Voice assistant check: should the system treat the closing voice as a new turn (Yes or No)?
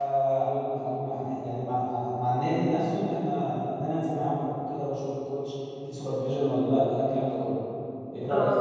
Yes